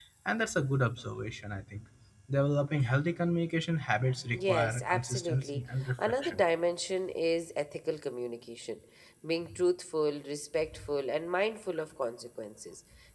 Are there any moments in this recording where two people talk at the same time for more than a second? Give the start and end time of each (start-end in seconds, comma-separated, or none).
4.4-6.4